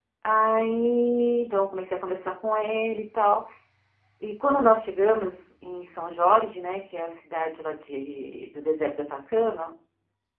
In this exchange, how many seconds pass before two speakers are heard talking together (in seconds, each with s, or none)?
none